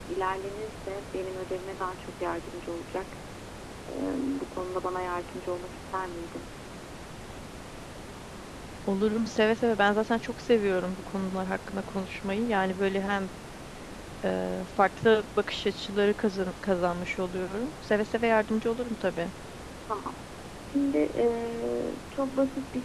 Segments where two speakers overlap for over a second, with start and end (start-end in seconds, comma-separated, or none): none